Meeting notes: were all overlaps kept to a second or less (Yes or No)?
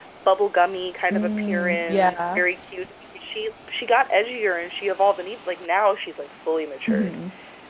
No